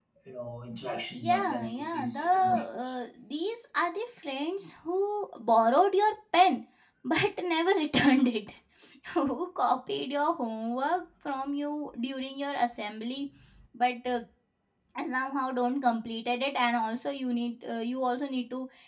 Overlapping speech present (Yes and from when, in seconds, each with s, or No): Yes, from 1.1 s